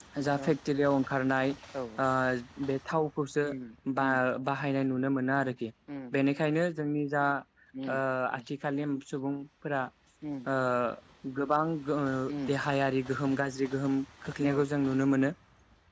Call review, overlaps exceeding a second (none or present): none